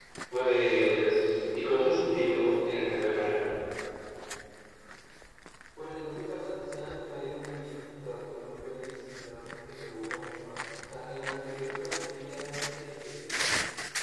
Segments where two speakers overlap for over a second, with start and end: none

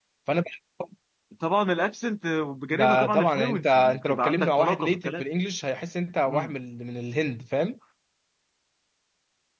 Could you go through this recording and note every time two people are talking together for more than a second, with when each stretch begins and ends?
2.7-5.2

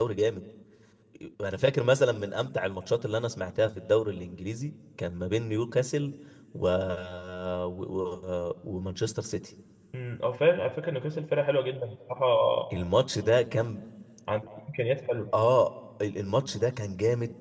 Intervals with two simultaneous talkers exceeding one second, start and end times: none

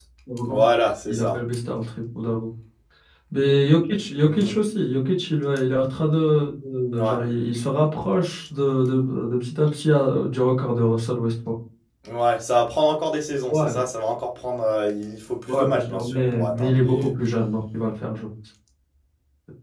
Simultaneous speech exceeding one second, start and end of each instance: 15.5-17.1

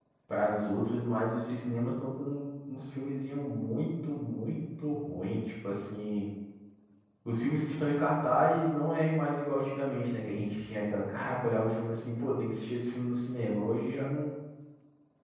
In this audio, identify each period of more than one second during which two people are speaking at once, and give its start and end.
none

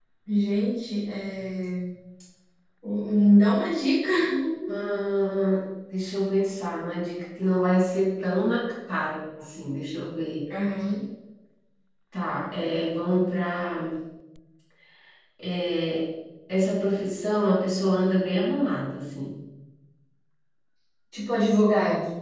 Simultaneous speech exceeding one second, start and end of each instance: none

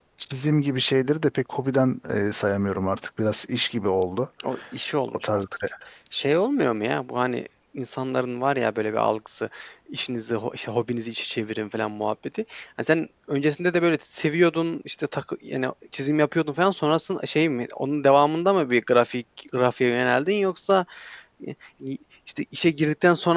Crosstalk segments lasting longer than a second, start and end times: none

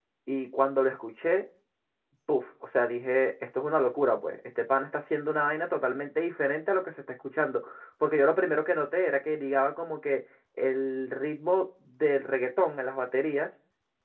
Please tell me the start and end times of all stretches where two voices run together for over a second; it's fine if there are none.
none

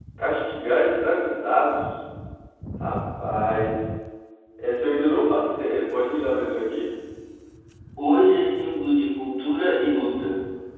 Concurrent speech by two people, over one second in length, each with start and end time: none

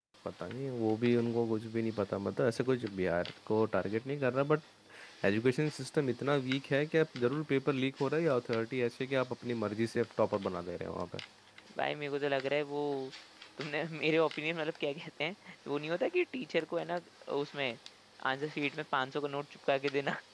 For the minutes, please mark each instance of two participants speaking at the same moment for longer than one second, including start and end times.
none

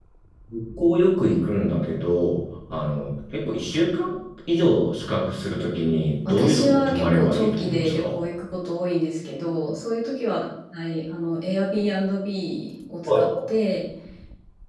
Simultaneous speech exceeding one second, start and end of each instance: 6.3-8.2

